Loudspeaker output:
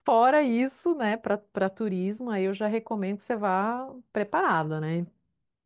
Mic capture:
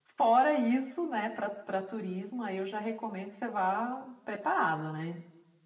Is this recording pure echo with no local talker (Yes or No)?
Yes